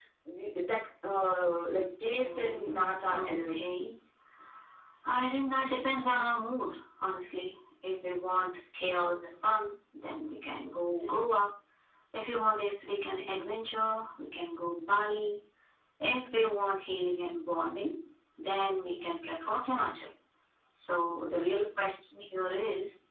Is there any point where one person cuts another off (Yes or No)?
Yes